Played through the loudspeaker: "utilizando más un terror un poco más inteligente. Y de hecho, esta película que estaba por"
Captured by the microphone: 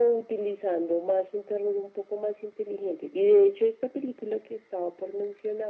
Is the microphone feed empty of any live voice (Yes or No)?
Yes